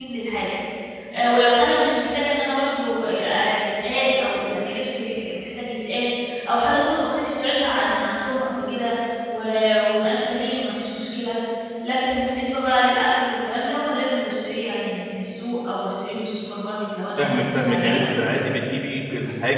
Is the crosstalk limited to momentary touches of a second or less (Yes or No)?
No